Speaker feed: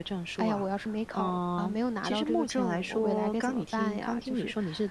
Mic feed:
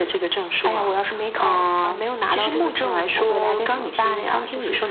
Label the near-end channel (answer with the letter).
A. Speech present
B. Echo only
B